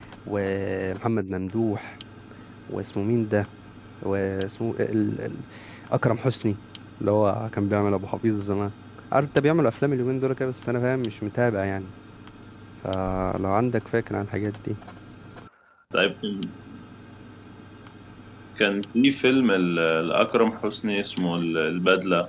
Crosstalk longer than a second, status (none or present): none